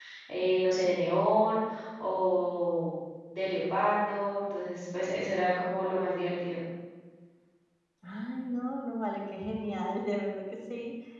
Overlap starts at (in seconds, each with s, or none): none